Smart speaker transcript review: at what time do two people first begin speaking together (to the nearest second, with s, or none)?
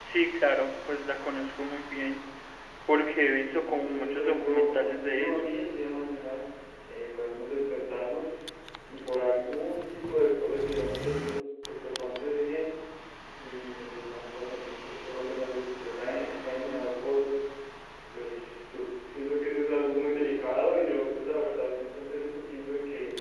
4 s